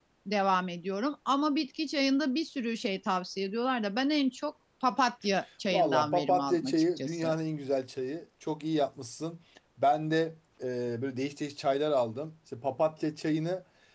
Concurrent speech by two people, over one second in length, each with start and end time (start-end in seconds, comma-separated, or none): 5.7-7.3